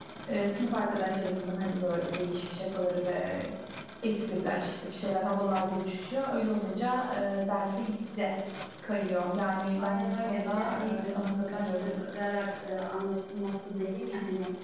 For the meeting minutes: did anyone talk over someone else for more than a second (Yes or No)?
Yes